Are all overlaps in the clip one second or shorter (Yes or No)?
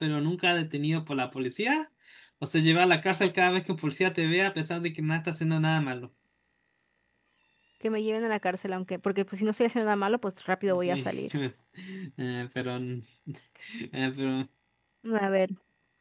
Yes